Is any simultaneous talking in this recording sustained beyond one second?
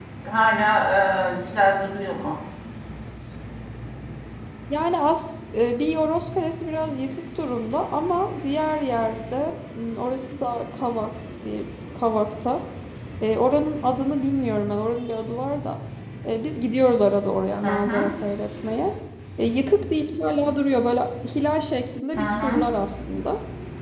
No

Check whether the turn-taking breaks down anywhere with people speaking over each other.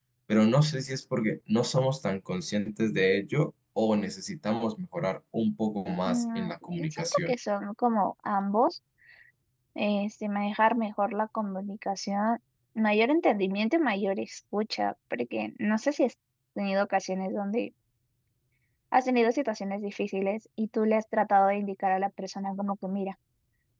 Yes, from 6.0 s

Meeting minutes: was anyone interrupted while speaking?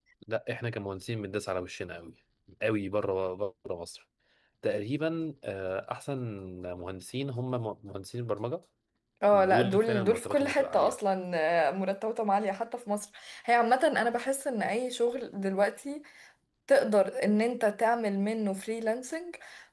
Yes, from 9.3 s

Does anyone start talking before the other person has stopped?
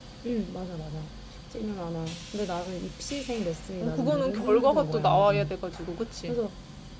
Yes, from 3.8 s

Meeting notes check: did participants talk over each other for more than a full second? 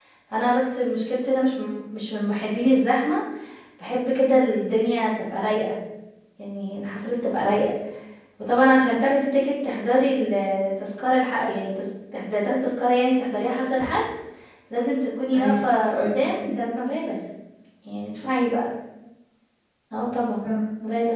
Yes, from 15.3 s

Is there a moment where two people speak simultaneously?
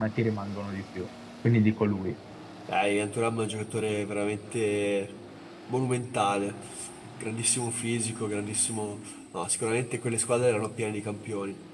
No

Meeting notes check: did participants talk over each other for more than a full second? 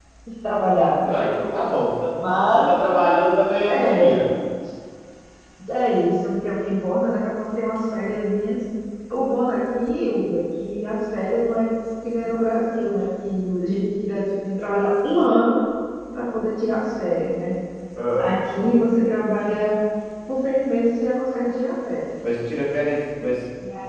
No

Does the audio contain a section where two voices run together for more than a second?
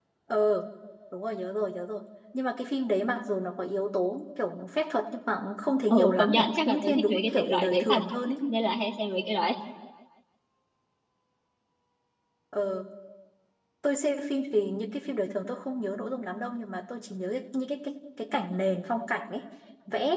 Yes, from 5.9 s

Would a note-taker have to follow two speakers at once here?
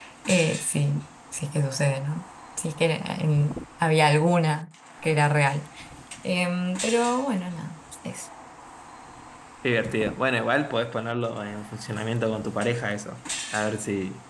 No

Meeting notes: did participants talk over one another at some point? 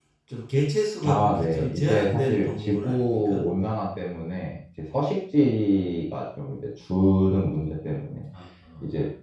Yes, from 1.0 s

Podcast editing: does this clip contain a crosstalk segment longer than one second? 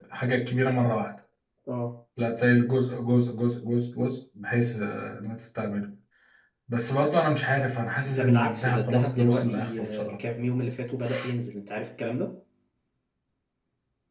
Yes, from 8.1 s

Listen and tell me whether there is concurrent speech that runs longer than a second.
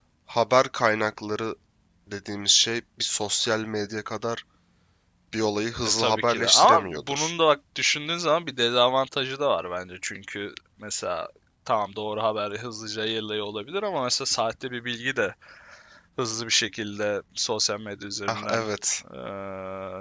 Yes, from 6.0 s

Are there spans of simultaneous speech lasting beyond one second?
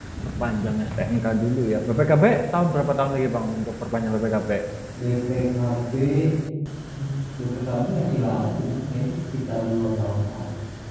No

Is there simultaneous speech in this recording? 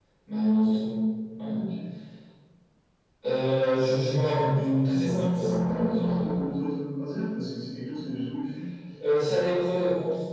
Yes, from 4.9 s

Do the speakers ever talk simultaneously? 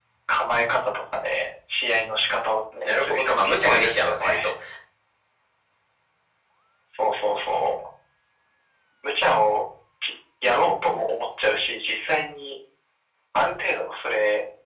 Yes, from 2.8 s

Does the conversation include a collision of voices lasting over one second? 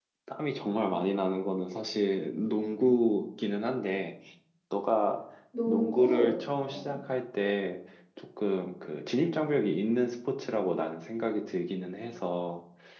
Yes, from 5.7 s

